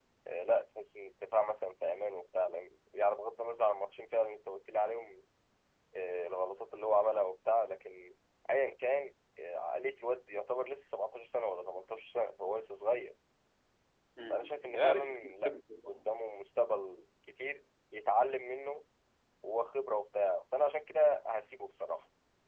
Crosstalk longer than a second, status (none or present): present